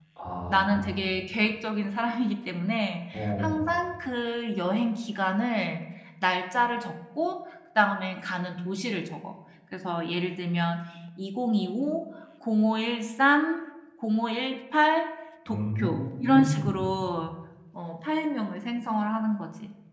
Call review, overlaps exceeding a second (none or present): present